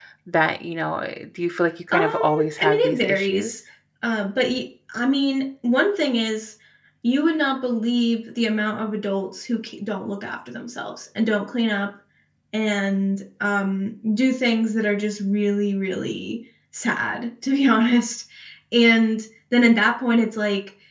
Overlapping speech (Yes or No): Yes